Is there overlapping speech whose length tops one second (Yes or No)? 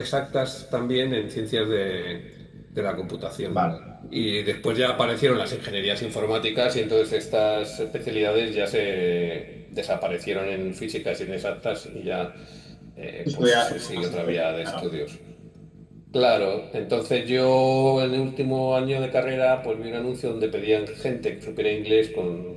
Yes